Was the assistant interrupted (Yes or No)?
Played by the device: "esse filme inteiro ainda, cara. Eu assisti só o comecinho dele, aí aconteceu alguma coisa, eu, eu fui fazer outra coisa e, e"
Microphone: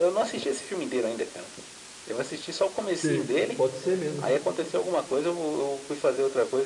Yes